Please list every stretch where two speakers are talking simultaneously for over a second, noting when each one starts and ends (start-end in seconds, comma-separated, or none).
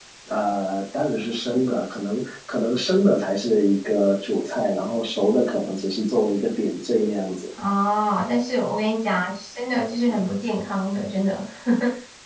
none